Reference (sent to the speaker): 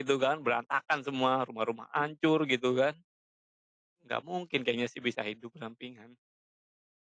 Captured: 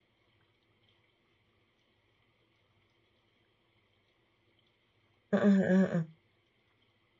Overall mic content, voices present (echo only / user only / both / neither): user only